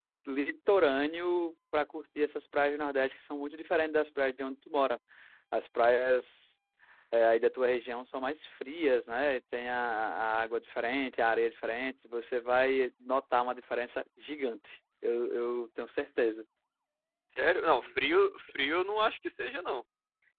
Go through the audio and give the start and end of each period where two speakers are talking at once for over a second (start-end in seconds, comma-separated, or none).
none